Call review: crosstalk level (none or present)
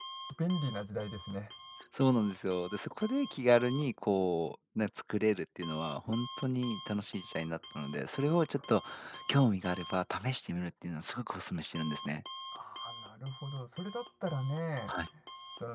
none